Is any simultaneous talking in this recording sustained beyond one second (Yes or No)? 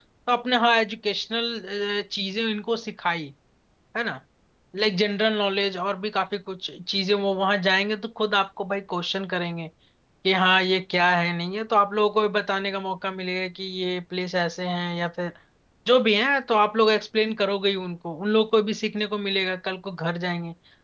No